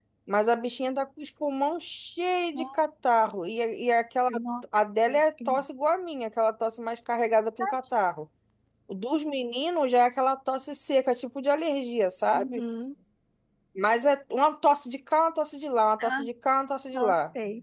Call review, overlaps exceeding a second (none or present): none